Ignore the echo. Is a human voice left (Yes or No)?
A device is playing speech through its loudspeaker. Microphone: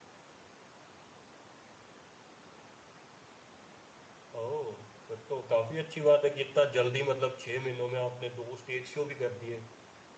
Yes